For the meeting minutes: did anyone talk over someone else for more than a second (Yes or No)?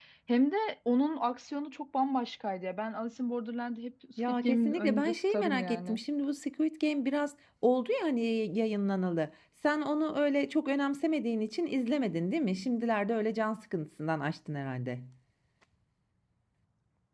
Yes